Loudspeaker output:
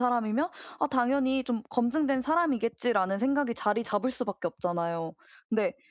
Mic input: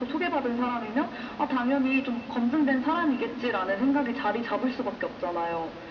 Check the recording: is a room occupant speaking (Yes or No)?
No